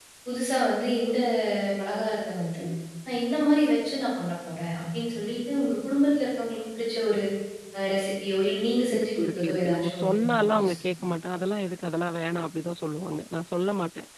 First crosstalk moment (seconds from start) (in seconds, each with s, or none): 8.9 s